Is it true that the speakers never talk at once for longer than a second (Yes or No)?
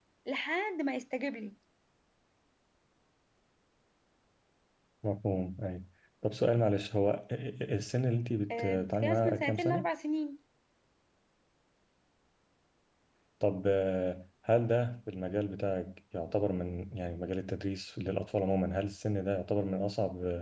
No